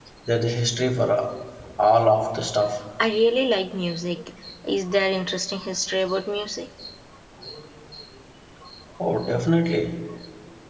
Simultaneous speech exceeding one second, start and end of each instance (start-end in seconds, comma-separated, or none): none